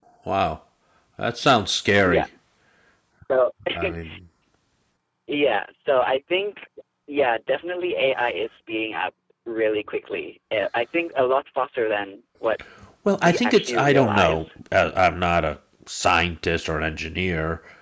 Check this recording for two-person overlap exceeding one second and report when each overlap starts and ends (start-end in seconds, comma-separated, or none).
13.2-14.4